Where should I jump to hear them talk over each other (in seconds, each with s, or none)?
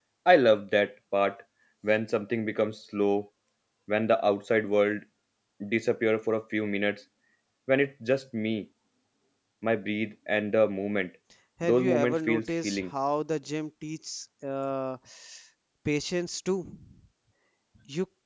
11.6 s